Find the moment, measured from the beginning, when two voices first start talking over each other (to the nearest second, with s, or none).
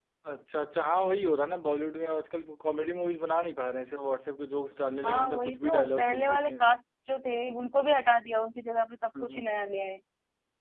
5 s